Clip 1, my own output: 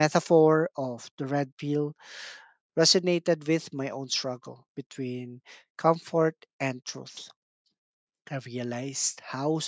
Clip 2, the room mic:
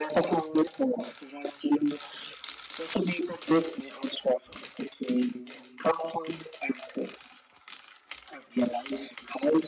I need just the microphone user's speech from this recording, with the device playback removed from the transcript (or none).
none